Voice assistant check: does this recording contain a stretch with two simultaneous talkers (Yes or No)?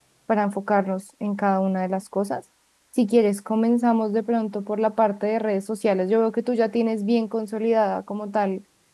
No